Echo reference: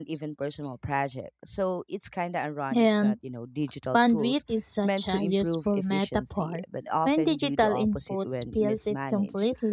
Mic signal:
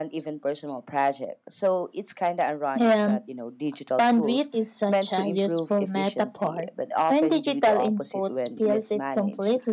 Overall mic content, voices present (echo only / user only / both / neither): echo only